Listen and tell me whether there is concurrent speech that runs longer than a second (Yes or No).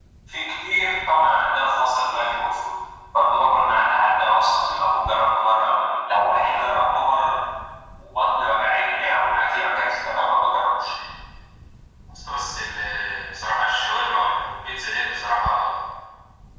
No